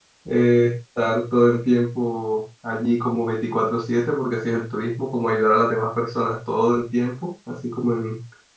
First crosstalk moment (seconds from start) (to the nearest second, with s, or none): none